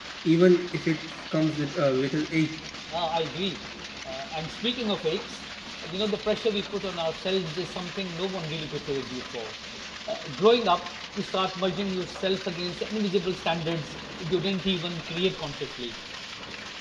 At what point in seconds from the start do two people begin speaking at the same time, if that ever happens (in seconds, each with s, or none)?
none